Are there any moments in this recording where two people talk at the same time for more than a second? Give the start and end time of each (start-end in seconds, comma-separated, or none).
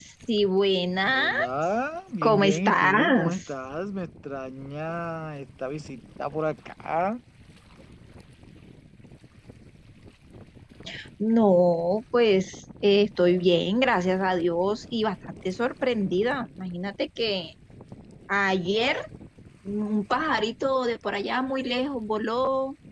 2.2-3.5